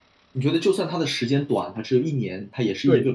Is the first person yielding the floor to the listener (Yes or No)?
Yes